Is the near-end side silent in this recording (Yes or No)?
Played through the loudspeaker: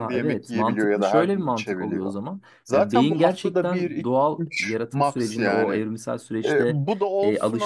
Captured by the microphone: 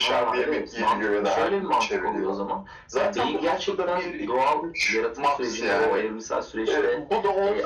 Yes